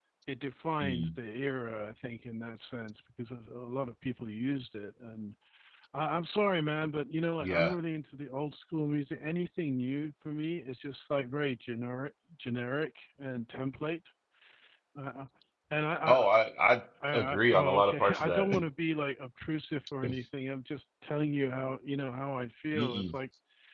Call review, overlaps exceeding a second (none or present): present